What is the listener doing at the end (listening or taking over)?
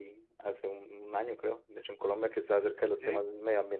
listening